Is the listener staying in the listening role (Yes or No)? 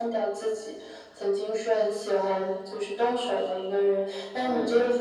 Yes